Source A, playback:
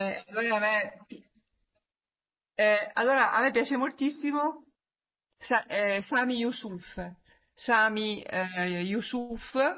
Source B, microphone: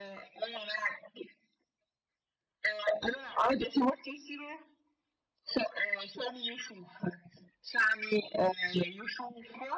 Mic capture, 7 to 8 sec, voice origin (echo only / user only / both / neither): echo only